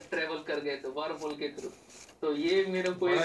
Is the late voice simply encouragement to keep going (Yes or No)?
Yes